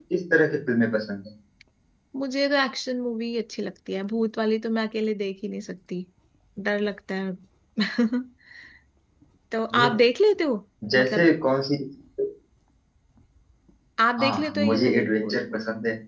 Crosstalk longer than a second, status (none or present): present